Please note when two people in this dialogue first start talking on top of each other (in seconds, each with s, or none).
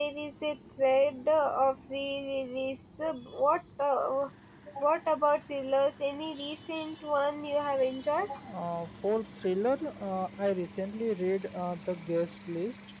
none